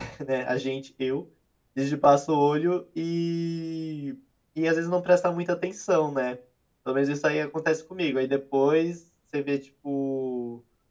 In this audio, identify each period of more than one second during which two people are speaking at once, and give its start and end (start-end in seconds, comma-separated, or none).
none